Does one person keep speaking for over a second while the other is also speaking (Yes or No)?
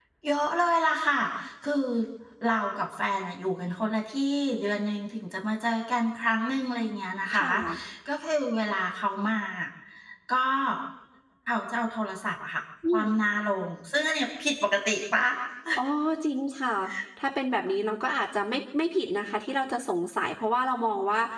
No